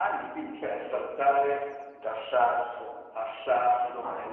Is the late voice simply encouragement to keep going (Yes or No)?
No